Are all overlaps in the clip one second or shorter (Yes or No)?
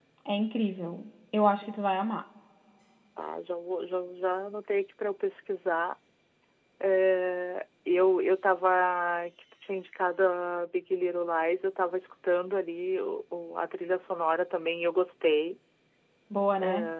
Yes